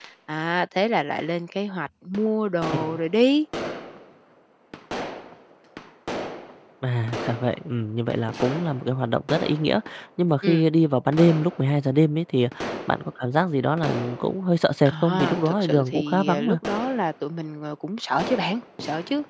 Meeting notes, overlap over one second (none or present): present